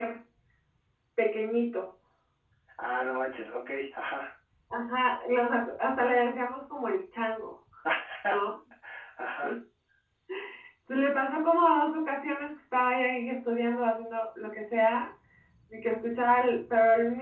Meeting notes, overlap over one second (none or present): none